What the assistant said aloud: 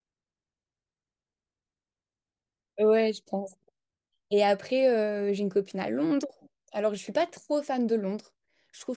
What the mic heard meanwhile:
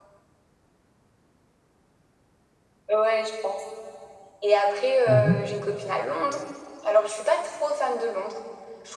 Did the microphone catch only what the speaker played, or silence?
No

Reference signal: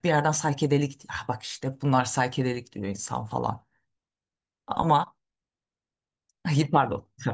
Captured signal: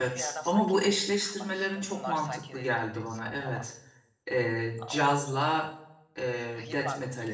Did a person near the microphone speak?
Yes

